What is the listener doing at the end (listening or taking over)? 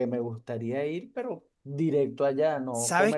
taking over